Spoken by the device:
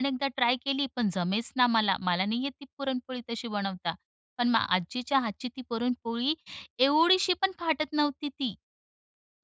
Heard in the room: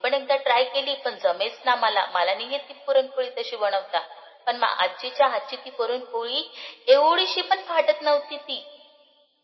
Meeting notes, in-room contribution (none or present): none